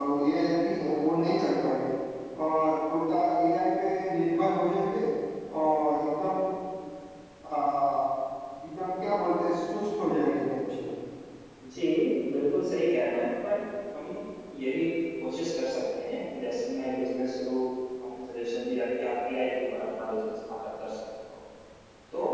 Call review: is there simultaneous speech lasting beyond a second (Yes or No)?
No